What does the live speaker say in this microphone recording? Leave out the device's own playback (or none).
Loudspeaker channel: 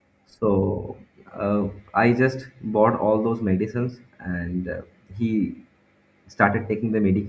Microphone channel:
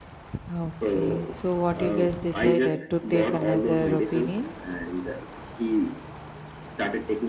okay. So what you guys decided to take another opinion?